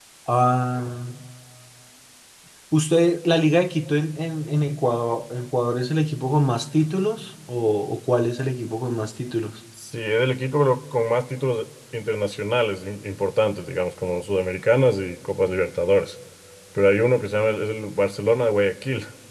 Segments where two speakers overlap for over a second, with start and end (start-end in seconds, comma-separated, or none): none